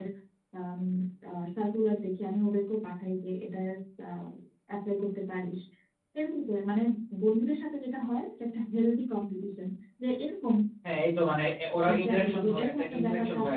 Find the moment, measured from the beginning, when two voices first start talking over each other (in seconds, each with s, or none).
11.9 s